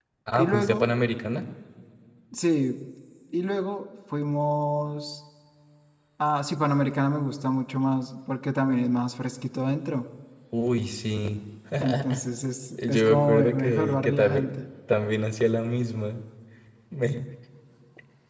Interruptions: present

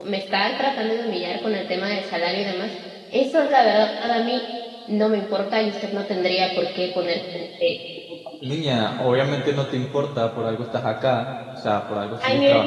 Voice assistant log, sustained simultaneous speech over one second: none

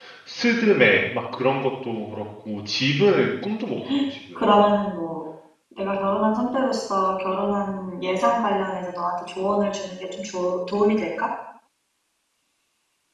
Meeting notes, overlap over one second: none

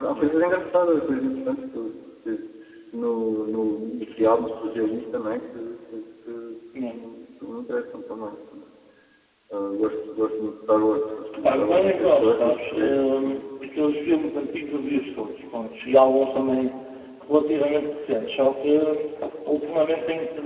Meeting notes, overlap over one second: present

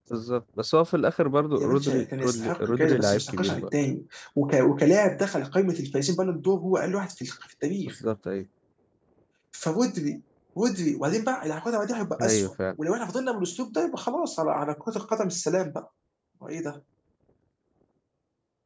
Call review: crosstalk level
present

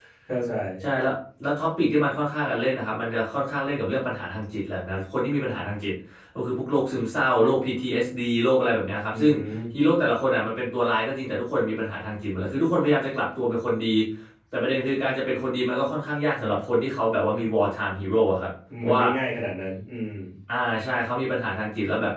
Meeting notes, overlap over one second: none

